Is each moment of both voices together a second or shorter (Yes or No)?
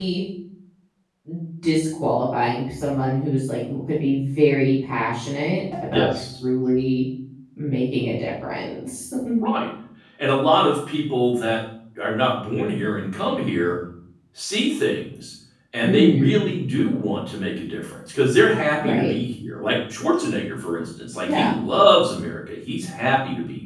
Yes